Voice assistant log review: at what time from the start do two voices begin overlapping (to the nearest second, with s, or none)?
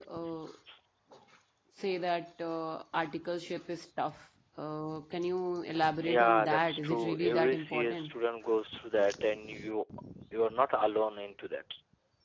6 s